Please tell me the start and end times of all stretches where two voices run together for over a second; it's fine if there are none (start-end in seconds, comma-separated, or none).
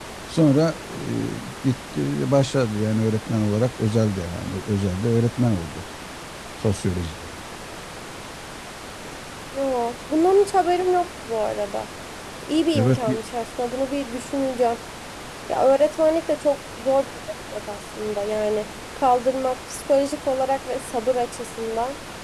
none